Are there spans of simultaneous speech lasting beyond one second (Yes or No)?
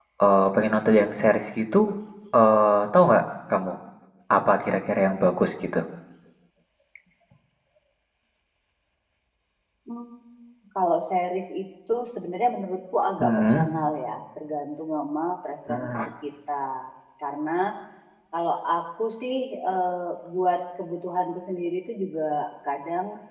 No